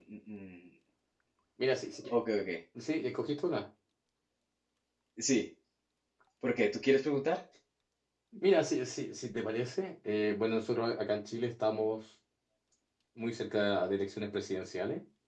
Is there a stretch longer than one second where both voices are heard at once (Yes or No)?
No